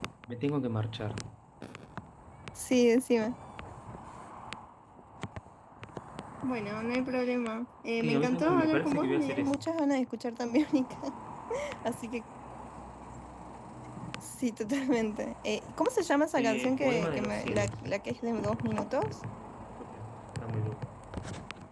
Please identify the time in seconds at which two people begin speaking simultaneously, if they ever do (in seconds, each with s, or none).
8.0 s